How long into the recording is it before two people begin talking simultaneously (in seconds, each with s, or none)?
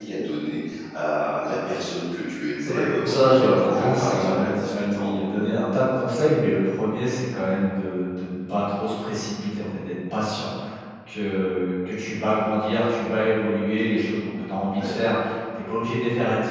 2.6 s